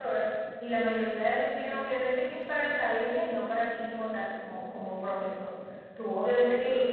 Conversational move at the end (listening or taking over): listening